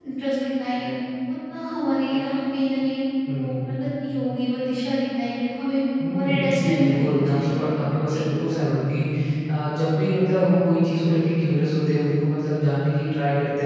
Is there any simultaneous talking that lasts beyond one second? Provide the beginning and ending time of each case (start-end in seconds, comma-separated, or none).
6.1-7.6